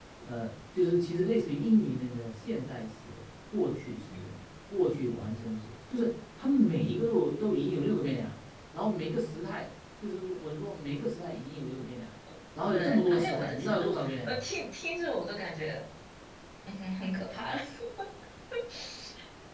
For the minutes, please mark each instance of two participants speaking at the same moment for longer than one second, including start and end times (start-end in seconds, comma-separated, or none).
12.6-14.4